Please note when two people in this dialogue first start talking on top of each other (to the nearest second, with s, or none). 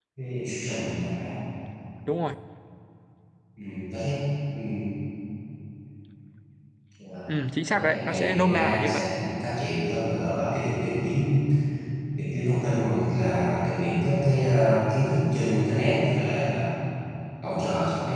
8 s